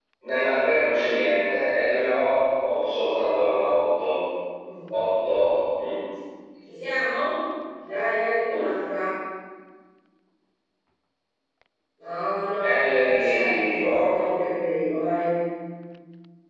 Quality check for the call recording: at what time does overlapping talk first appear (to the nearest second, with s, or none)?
13 s